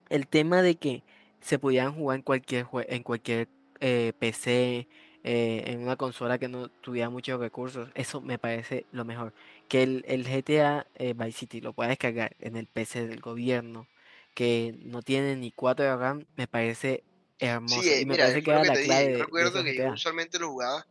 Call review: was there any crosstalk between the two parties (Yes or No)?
Yes